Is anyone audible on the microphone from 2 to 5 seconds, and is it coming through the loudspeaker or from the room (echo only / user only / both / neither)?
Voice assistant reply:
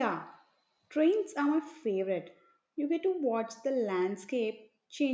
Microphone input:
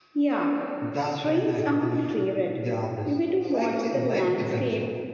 both